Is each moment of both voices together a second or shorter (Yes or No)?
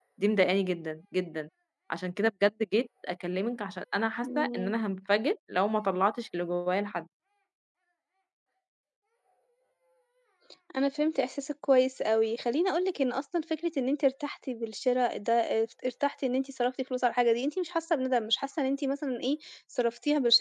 Yes